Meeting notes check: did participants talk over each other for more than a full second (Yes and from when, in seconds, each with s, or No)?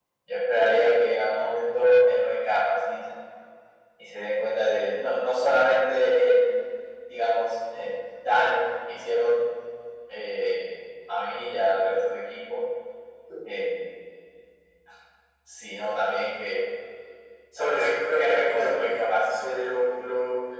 Yes, from 17.6 s